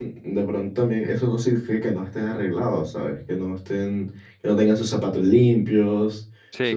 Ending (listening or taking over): listening